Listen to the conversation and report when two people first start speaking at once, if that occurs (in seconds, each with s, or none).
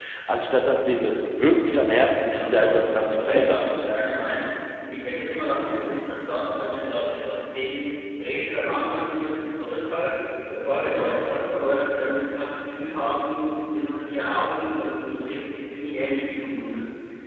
2.3 s